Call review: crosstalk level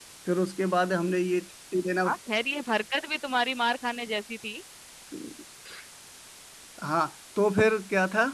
none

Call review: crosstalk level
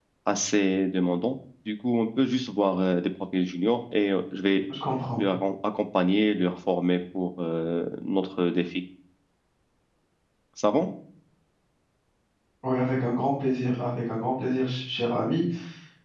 none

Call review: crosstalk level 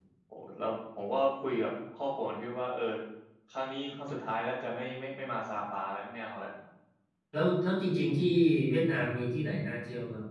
none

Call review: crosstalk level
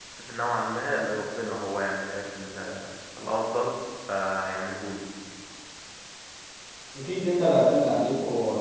none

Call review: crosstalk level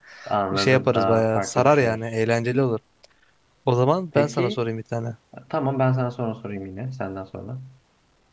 present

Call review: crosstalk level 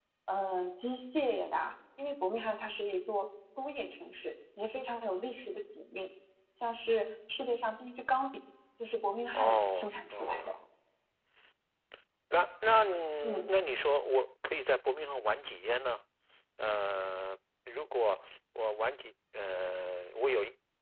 present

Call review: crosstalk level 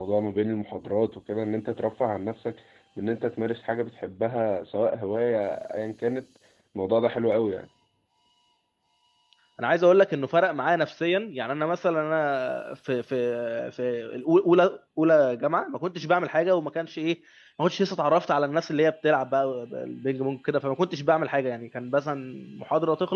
none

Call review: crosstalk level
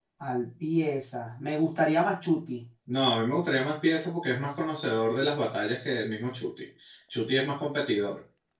none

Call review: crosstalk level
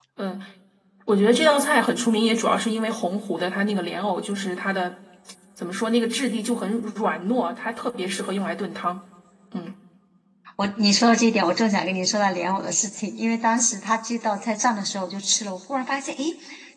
none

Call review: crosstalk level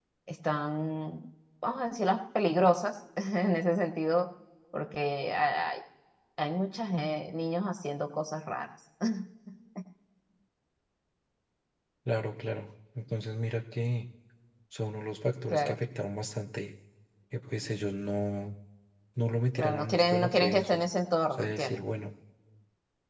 present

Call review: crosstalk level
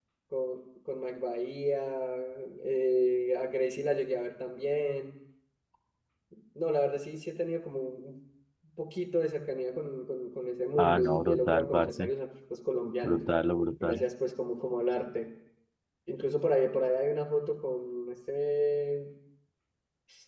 present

